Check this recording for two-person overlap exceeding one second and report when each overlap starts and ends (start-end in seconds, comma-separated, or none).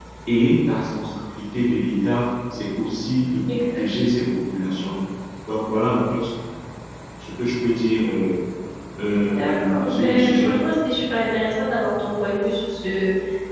9.3-10.5